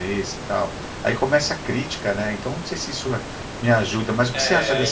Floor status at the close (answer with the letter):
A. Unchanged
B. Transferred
B